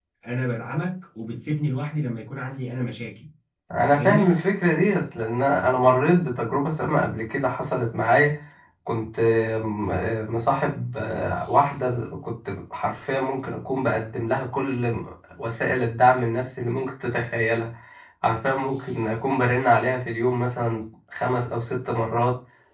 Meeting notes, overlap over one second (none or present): none